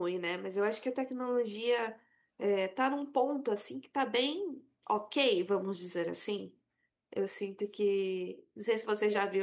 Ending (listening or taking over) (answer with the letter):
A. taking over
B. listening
B